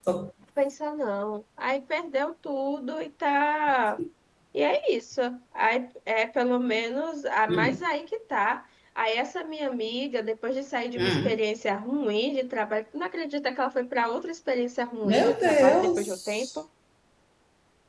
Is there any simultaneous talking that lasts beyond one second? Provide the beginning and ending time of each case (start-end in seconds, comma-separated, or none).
15.0-16.5